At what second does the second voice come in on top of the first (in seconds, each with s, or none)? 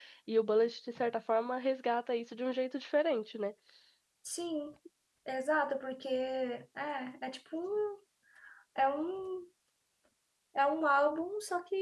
none